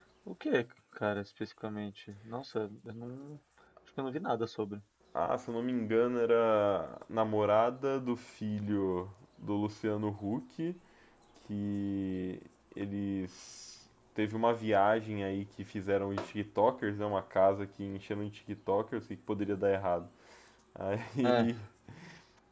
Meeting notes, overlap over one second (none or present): none